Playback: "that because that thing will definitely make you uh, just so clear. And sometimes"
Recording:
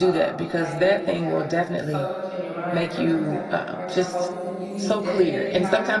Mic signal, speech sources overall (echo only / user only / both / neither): both